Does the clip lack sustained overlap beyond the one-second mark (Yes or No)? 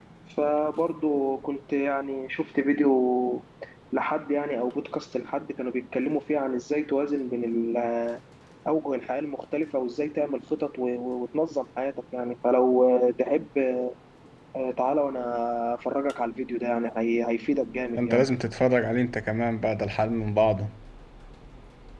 Yes